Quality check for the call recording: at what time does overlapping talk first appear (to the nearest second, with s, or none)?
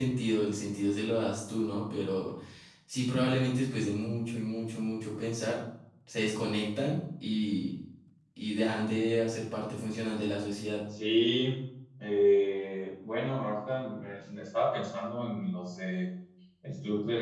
none